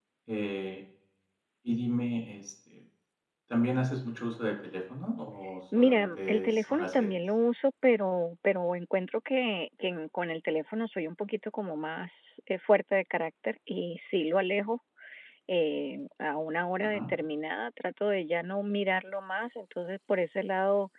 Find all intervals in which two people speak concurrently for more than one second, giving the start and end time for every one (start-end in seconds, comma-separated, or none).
5.8-7.2